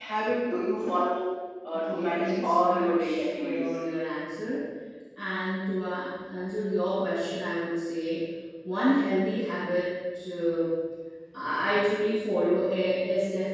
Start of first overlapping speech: 2 s

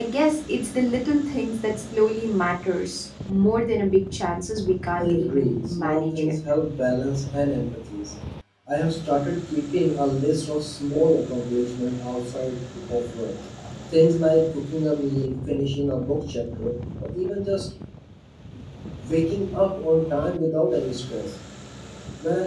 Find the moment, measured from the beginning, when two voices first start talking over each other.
5 s

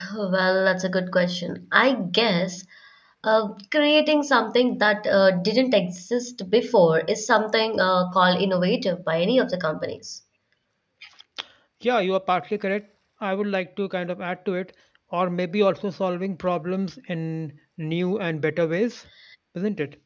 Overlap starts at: none

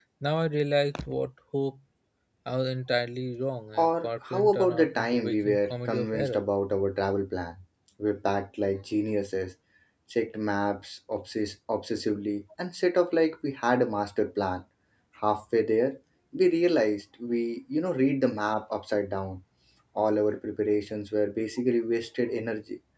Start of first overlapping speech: 4 s

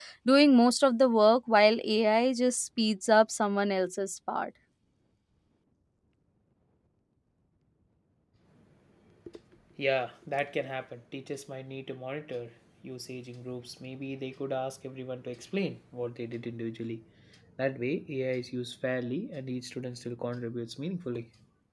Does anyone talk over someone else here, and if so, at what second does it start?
none

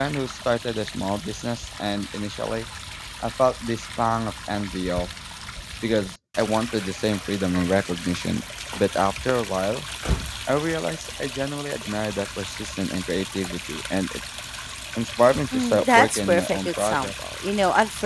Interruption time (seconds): 16 s

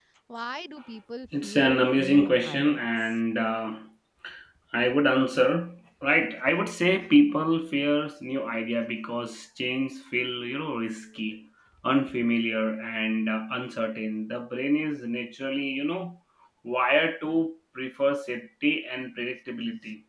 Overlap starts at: 1 s

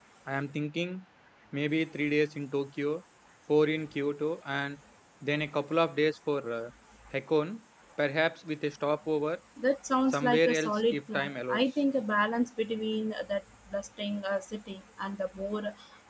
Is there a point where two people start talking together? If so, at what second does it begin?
10 s

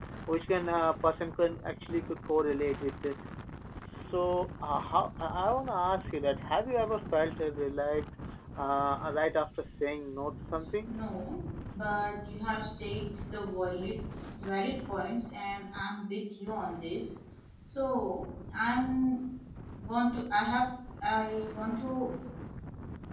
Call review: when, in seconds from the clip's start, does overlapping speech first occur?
none

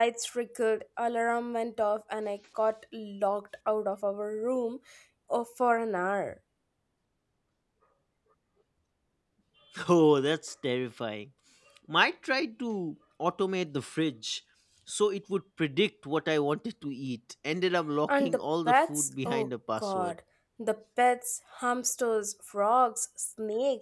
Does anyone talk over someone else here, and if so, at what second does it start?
18 s

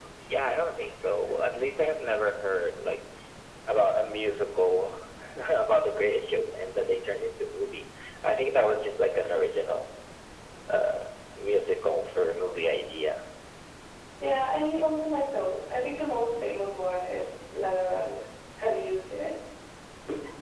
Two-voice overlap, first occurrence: none

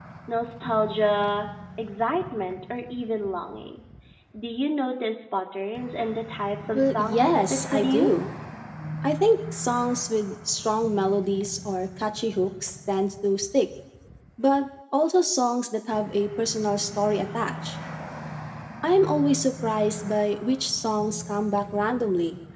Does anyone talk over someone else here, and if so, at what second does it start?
7 s

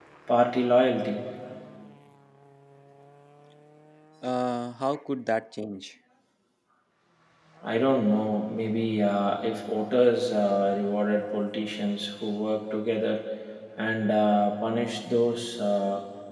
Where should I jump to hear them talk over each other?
none

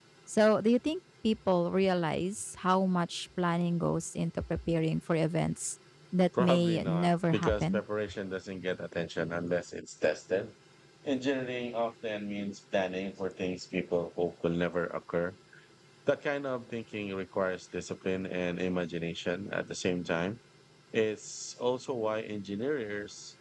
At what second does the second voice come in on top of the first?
6 s

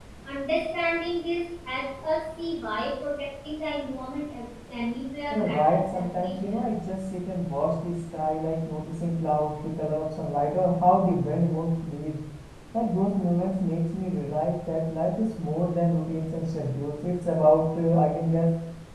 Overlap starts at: 5 s

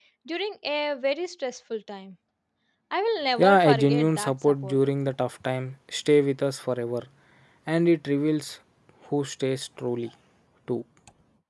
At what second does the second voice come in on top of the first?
3 s

